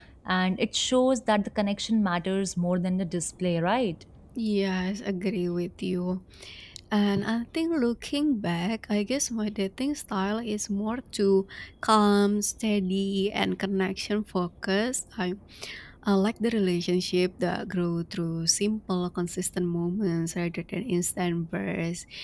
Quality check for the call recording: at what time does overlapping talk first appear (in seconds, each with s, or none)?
none